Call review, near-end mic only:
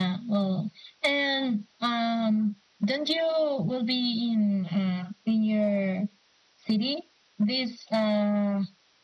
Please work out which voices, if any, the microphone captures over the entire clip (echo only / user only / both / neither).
echo only